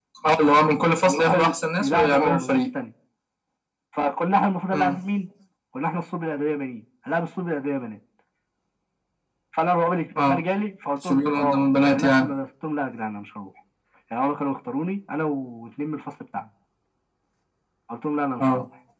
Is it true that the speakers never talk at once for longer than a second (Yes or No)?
No